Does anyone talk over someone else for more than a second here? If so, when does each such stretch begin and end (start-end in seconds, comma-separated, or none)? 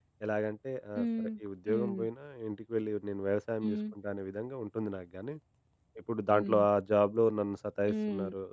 none